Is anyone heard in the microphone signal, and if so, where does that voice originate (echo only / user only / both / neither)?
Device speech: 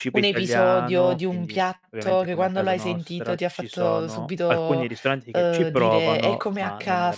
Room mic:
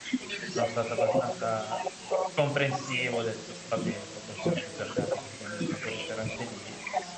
both